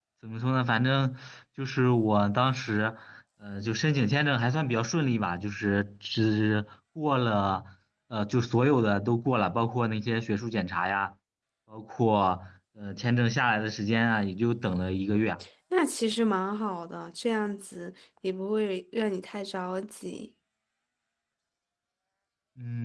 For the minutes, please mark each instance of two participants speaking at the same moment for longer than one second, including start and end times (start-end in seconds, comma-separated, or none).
none